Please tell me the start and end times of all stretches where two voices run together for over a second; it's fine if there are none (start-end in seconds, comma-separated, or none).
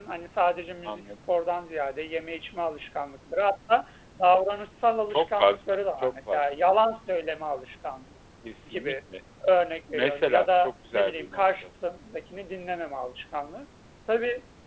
5.1-6.5, 9.9-11.4